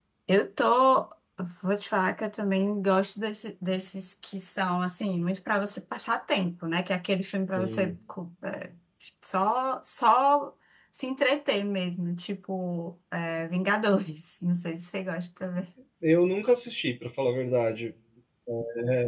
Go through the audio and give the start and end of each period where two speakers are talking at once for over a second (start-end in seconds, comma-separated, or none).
none